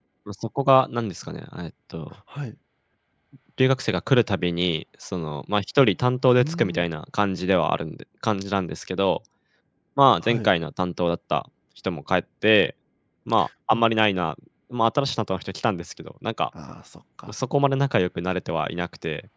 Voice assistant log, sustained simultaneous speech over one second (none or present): none